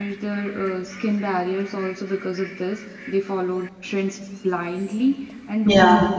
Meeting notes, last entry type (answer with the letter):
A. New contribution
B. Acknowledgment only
B